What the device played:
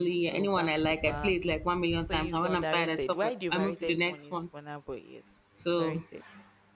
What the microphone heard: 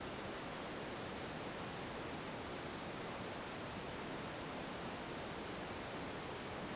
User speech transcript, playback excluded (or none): none